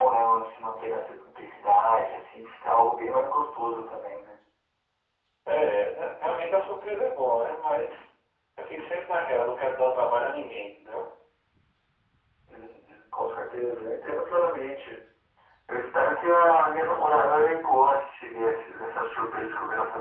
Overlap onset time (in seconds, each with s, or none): none